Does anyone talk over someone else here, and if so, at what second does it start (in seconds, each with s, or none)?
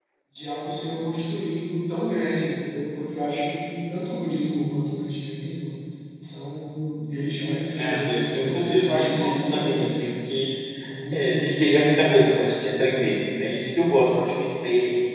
7.8 s